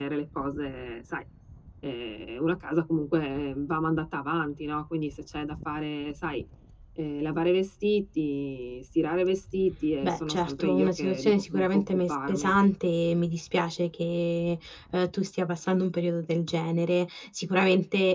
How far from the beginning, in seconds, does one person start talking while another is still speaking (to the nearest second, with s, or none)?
10 s